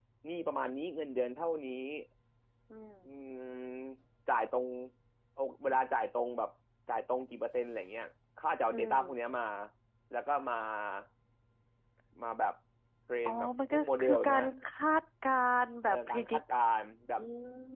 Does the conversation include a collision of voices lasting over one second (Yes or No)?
Yes